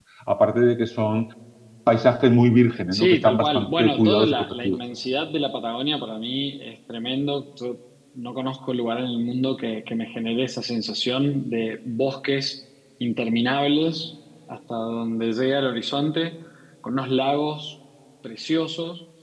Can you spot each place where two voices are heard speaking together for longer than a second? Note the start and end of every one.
2.9-4.8

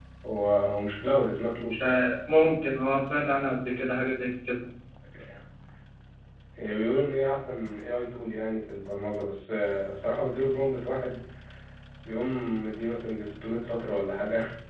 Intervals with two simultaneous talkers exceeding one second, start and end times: none

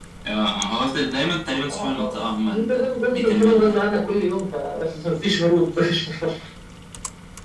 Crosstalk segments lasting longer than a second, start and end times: 1.7-3.8

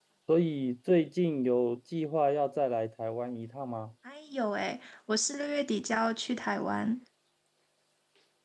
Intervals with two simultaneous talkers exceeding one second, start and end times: none

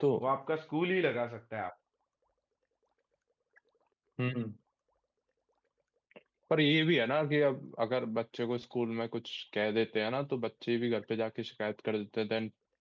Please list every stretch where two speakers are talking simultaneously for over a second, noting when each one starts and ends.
none

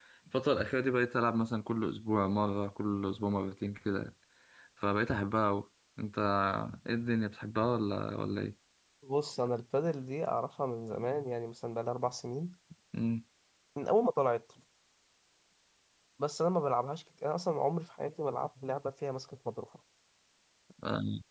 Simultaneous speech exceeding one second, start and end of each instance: none

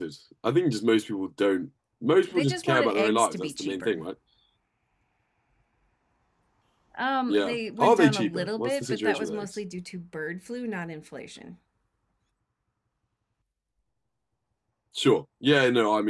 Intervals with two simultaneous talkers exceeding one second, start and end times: 2.3-4.0, 7.3-9.5

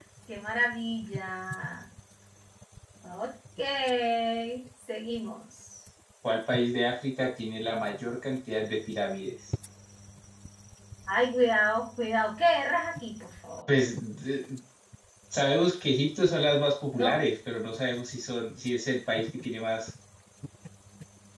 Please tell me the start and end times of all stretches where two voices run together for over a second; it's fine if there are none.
none

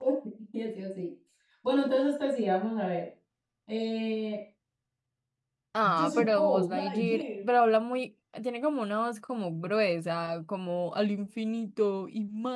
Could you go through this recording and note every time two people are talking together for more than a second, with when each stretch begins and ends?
5.8-7.2

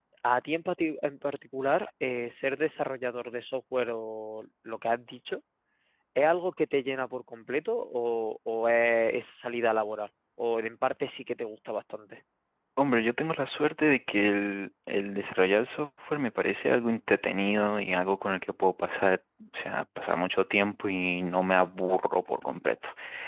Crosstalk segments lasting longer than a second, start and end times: none

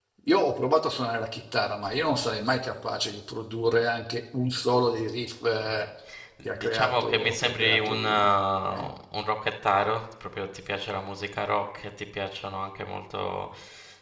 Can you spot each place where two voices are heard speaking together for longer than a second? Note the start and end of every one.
6.5-8.3

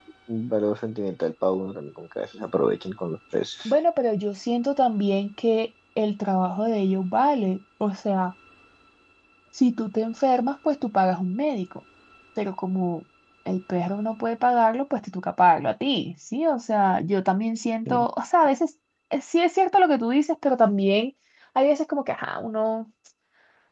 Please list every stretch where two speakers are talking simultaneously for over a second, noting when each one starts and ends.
none

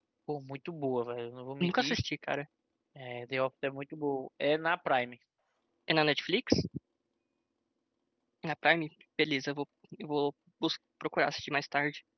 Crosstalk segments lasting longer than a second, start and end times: none

